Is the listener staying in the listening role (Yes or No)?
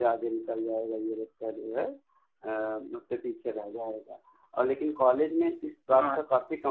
Yes